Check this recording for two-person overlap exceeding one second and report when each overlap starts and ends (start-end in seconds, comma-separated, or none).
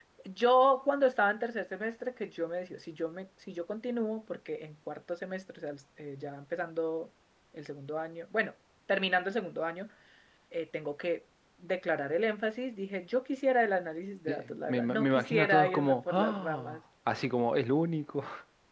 14.3-16.8